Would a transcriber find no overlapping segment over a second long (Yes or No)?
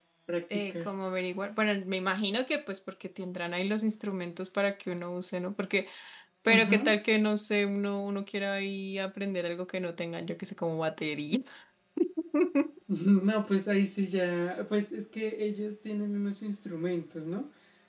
Yes